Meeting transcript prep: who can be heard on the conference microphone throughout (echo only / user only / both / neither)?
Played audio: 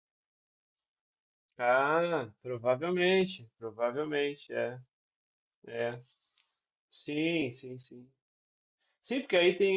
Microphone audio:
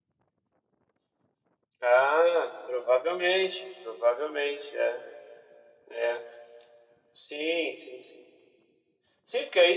echo only